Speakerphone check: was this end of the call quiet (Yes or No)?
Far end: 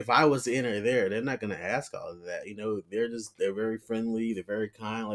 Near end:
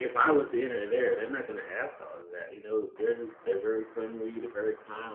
Yes